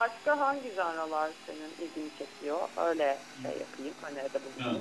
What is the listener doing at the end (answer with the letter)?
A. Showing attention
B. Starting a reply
B